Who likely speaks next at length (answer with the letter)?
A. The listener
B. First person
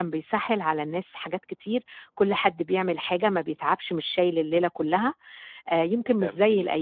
B